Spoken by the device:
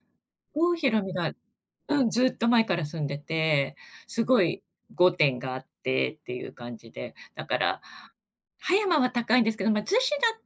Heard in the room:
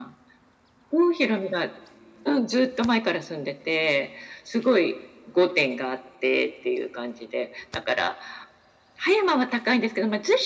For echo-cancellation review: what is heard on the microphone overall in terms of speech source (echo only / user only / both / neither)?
echo only